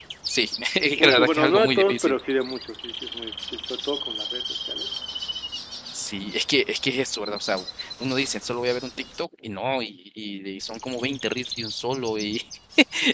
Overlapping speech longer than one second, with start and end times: 0.9-2.2

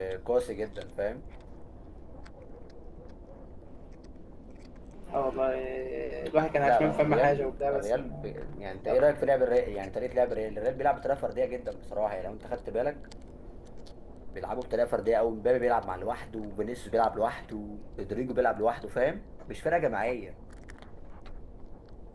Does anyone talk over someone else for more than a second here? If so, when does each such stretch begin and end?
6.7-8.3

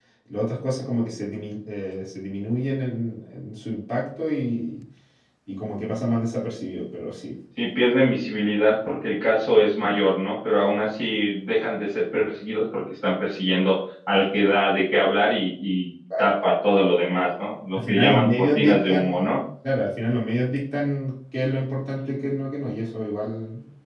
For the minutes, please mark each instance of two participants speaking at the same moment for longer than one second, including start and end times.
17.8-19.4

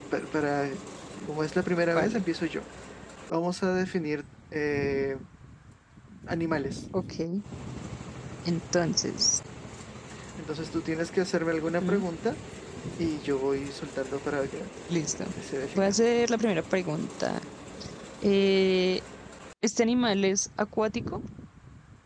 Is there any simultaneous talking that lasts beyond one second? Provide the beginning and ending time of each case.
none

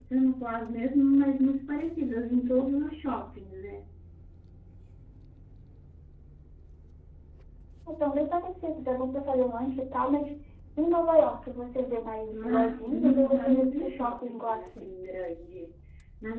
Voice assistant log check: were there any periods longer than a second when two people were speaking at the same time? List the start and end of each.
12.3-14.9

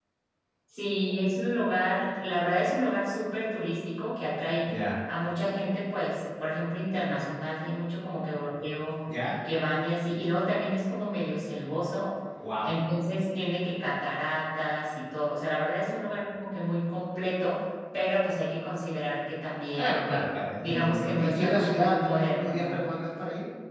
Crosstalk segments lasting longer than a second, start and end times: 20.6-22.8

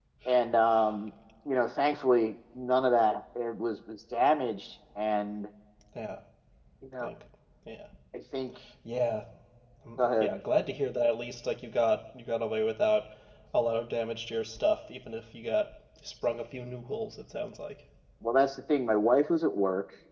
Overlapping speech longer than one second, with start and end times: none

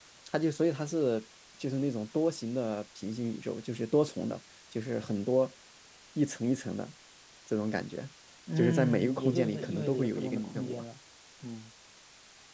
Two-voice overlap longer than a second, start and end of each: 8.6-10.8

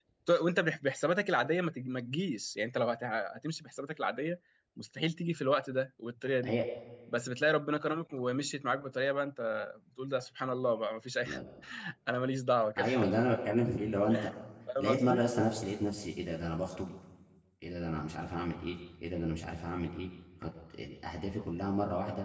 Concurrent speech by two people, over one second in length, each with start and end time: none

